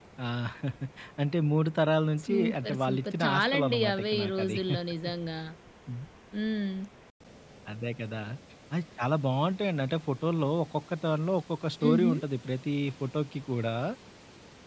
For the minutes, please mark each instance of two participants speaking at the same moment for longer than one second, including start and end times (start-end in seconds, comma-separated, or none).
2.3-4.6